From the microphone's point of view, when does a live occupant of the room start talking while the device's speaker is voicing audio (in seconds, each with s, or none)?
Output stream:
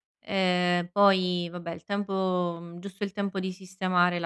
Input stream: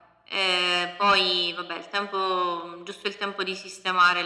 none